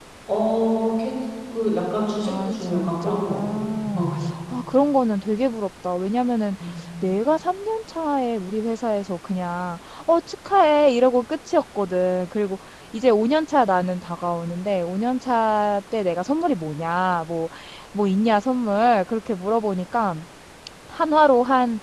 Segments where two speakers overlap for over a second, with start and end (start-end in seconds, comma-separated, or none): 2.2-3.7